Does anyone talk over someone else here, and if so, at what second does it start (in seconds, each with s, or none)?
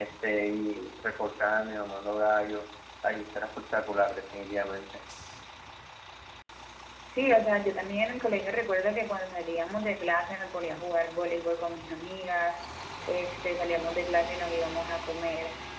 none